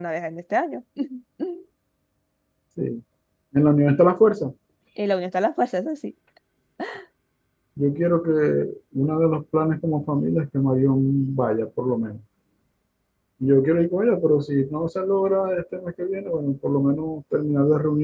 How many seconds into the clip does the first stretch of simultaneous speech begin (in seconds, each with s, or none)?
none